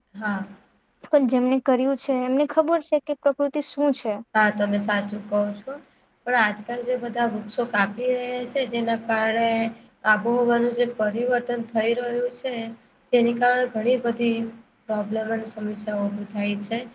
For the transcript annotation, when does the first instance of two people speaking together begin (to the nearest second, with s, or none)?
none